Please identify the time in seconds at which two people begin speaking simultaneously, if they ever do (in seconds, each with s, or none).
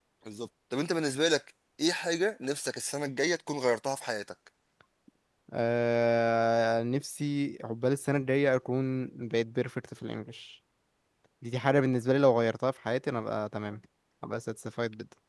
none